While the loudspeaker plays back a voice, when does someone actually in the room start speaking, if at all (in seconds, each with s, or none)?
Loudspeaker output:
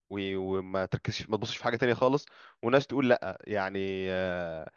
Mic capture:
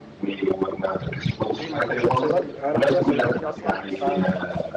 1.5 s